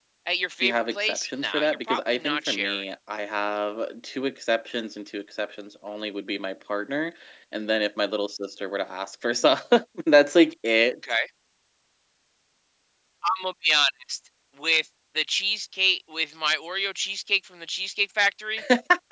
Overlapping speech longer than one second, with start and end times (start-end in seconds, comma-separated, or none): 0.6-2.8